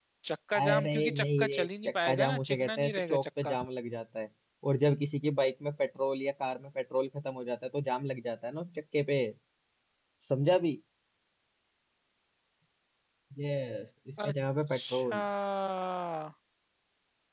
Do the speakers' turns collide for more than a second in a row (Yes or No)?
Yes